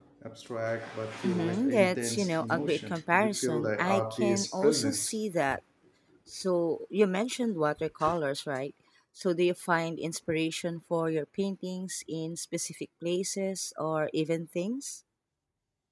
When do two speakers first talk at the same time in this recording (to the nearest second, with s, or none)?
1 s